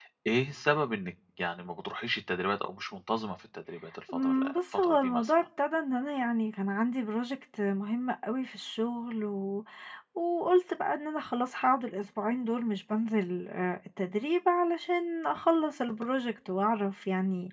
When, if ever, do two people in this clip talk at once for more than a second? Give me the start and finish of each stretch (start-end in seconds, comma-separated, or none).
4.1-5.4